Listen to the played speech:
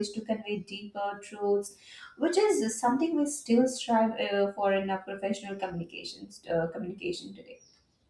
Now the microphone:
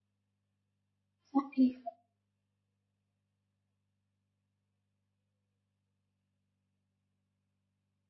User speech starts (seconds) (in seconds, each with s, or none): 1.3 s